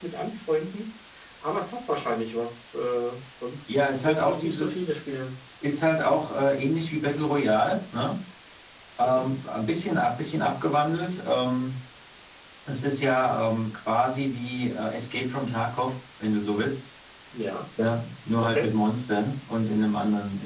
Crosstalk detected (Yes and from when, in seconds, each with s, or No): Yes, from 3.7 s